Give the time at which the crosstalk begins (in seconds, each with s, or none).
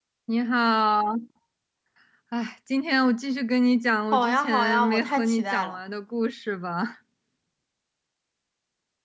4.1 s